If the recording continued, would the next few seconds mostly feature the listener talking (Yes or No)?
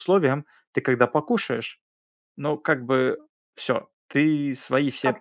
Yes